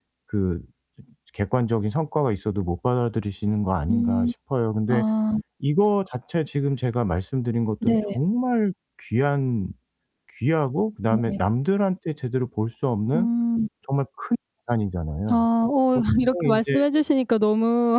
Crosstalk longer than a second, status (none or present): none